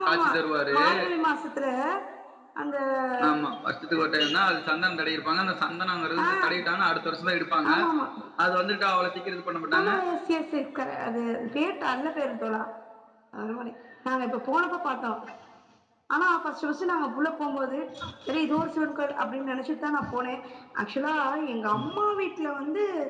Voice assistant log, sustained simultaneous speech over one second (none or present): none